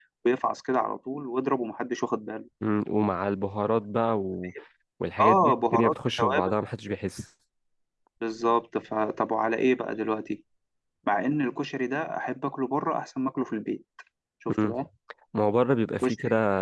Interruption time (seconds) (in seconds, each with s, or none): 5.2 s